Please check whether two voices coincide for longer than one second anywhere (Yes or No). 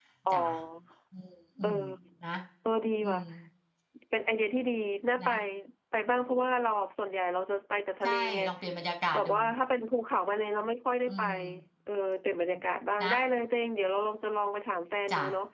No